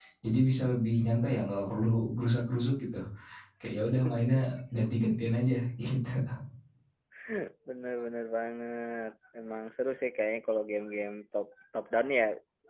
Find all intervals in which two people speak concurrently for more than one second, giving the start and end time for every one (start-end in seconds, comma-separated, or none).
none